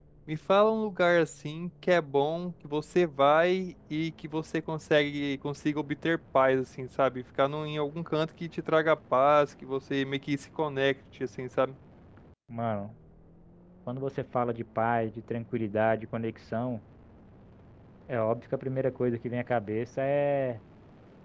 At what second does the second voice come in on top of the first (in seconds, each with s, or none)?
none